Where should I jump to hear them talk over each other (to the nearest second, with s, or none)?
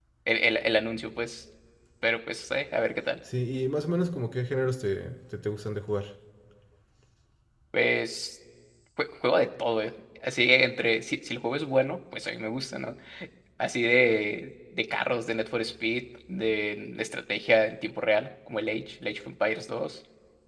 none